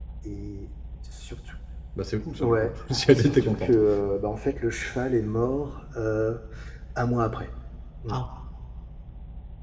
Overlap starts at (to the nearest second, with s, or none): 2 s